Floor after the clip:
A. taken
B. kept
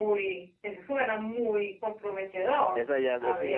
A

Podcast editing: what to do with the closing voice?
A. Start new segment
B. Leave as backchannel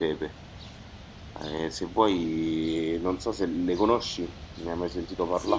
A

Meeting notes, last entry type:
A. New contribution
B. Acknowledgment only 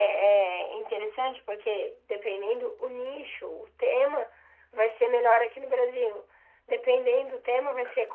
B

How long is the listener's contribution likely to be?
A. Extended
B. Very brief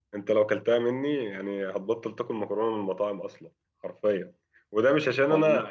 B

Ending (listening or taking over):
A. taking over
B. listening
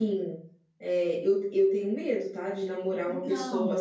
B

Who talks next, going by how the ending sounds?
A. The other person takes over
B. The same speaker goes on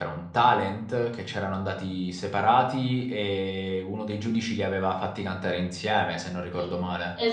A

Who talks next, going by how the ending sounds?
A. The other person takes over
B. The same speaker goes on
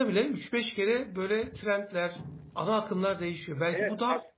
A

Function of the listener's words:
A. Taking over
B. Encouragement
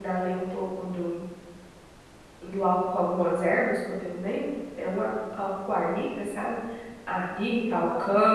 B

